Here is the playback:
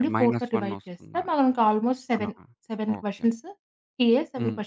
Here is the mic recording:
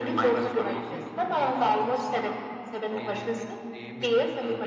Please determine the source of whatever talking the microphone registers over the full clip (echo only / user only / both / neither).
both